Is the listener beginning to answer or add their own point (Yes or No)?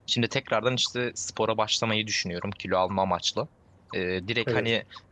No